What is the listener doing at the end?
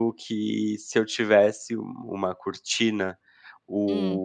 listening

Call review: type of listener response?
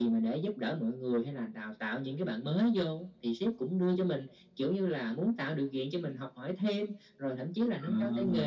listening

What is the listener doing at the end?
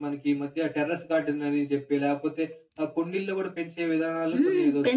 taking over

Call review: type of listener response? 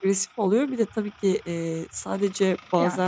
listening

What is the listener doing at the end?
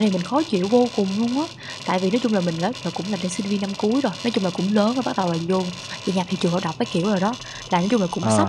listening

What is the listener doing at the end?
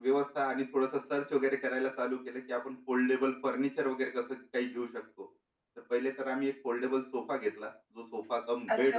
taking over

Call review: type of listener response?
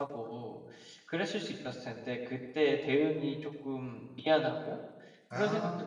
listening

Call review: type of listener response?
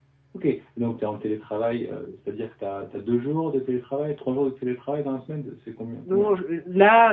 taking over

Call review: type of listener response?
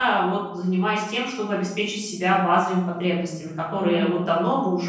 listening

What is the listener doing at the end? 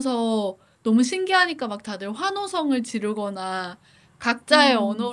listening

